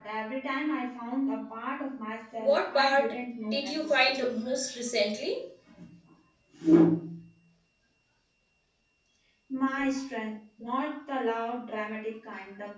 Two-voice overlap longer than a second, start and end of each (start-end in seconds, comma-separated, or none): 2.4-4.2